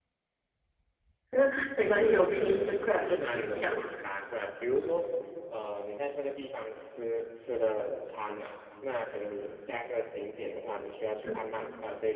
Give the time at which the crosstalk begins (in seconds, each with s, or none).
1.9 s